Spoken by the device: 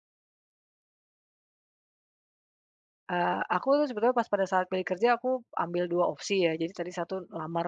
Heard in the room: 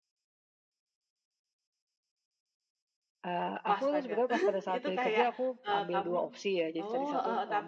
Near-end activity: present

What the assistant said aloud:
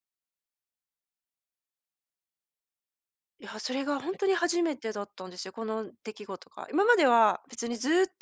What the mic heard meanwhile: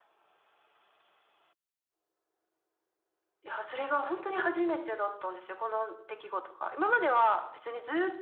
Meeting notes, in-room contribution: none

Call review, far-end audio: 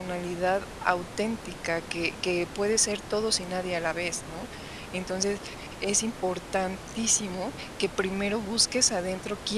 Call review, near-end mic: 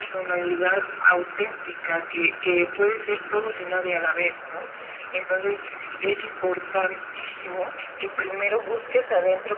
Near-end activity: none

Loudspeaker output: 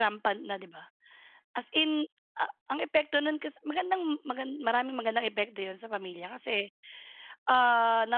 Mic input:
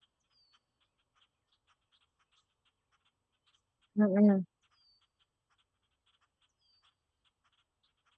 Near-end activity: present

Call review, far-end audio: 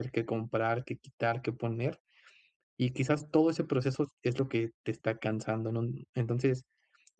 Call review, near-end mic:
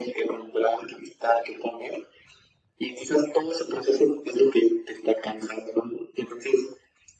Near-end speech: none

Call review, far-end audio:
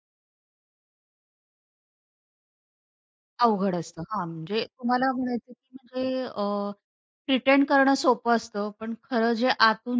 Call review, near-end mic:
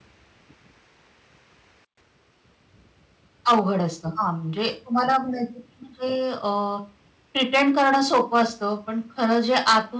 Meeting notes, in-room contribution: none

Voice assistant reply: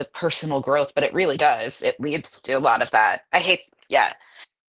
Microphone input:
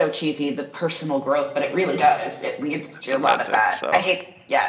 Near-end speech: present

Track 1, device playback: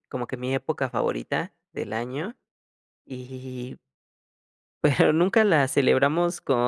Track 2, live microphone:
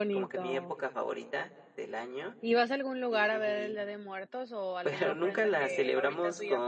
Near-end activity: present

